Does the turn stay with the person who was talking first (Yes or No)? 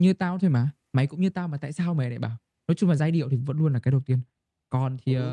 No